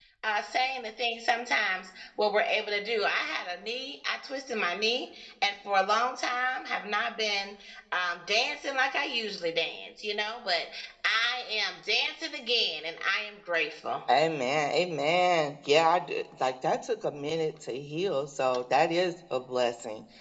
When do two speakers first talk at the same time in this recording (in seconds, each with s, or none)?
none